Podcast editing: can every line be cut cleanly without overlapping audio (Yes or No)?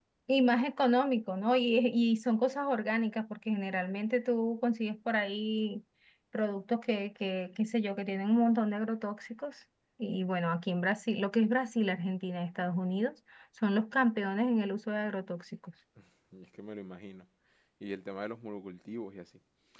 Yes